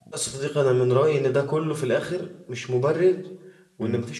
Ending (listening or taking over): listening